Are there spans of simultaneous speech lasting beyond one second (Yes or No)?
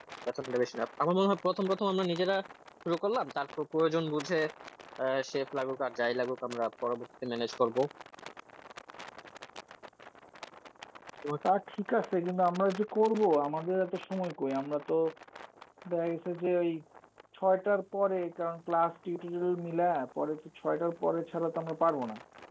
No